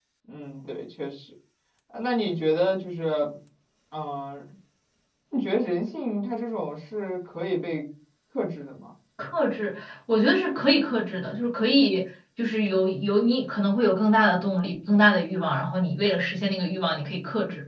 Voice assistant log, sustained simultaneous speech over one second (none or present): none